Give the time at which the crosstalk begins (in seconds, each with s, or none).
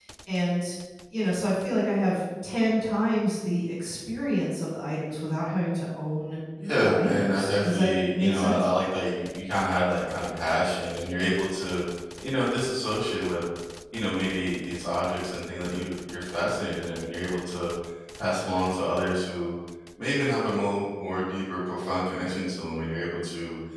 6.8 s